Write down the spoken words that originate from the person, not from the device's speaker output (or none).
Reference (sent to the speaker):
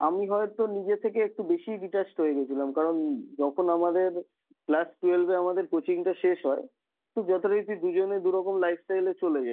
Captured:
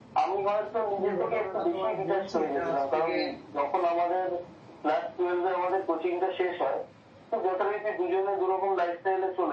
যে ঘটনাটা তোমায় বলছি এটা আজ থেকে